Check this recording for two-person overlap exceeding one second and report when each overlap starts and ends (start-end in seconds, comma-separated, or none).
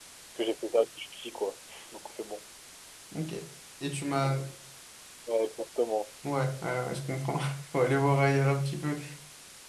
none